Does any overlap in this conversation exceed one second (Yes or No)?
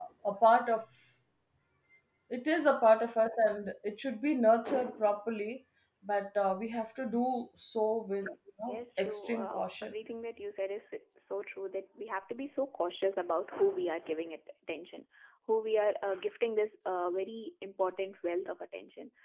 Yes